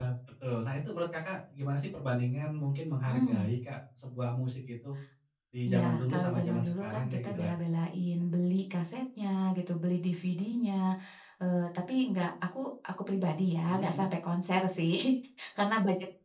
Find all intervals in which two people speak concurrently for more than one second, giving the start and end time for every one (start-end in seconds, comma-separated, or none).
5.7-7.5